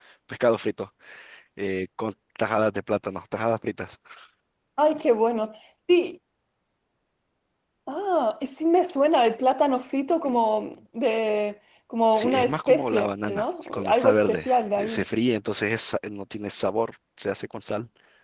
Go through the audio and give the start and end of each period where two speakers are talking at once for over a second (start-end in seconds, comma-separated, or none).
12.1-15.0